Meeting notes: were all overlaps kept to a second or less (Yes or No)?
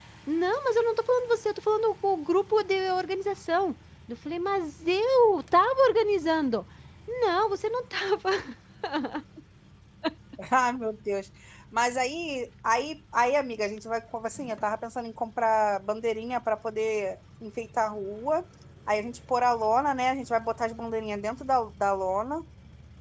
Yes